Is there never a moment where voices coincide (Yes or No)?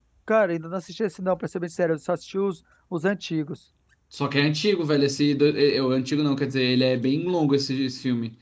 Yes